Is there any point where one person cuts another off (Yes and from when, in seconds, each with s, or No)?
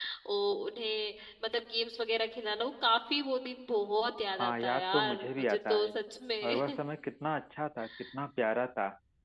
Yes, from 4.4 s